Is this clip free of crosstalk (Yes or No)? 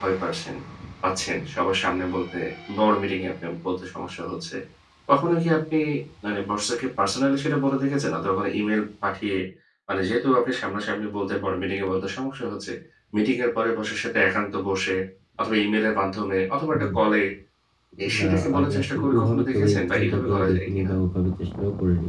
No